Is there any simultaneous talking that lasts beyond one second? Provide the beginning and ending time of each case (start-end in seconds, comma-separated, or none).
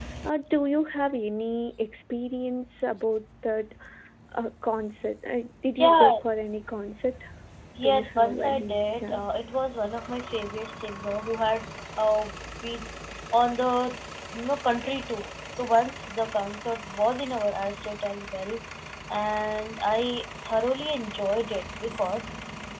7.8-9.2